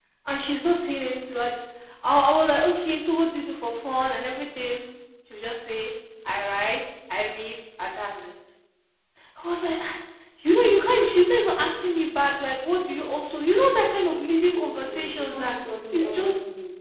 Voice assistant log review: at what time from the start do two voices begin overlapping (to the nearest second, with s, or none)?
14 s